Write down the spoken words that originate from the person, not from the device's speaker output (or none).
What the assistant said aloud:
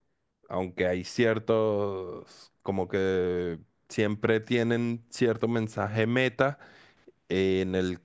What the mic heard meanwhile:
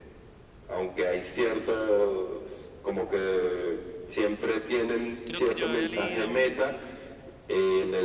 Creo que yo había leído,